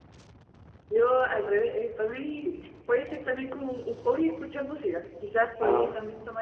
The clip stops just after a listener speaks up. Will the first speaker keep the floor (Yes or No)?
Yes